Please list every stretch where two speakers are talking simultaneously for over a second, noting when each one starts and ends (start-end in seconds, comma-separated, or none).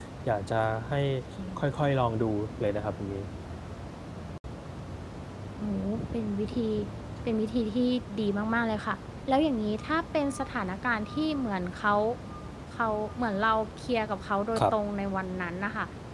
none